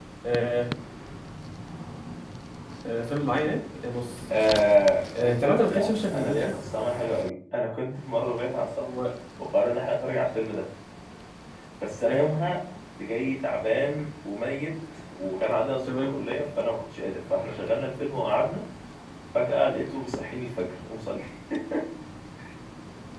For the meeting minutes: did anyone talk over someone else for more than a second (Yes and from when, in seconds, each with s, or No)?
Yes, from 5.2 s